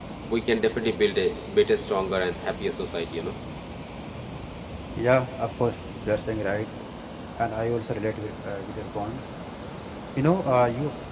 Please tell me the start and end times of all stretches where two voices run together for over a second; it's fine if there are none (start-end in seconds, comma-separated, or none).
none